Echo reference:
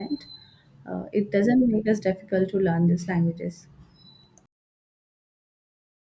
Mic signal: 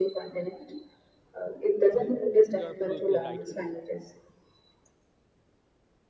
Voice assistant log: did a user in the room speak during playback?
Yes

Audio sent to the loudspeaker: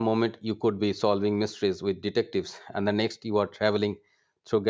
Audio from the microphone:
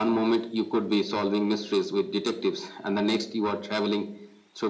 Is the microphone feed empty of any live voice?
Yes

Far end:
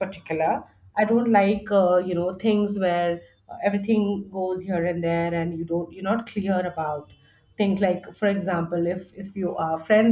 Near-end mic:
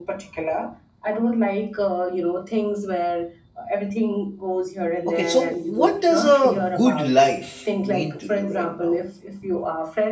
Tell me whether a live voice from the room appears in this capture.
Yes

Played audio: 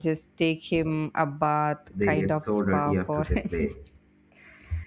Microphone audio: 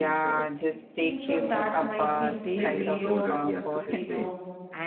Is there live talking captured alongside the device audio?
Yes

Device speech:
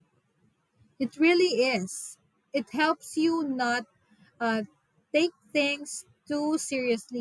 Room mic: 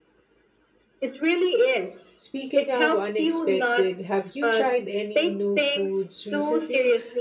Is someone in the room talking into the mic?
Yes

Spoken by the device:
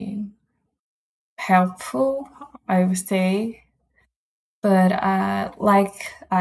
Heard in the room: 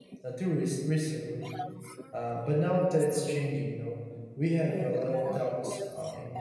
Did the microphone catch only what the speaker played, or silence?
No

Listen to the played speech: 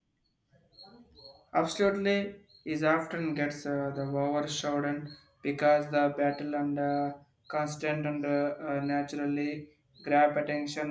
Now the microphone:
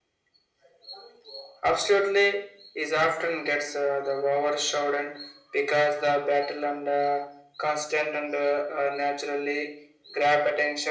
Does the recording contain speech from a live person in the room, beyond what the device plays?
No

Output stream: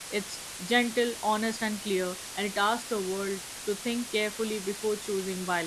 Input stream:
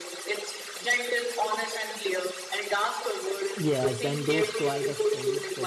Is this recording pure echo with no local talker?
No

